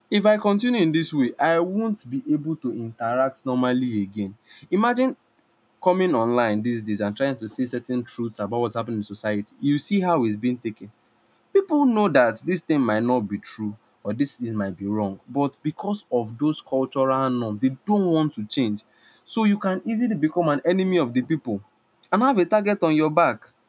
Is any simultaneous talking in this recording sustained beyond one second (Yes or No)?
No